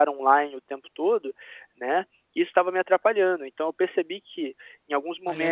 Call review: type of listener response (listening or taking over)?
listening